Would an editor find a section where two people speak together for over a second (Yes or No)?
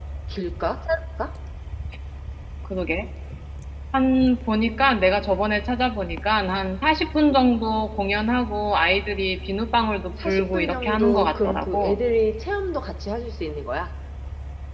Yes